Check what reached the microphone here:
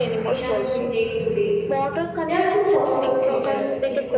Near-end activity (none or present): present